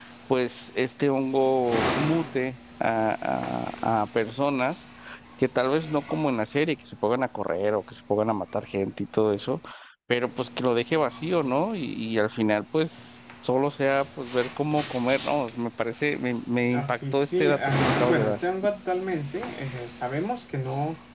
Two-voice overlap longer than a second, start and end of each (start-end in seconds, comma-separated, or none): 16.7-18.4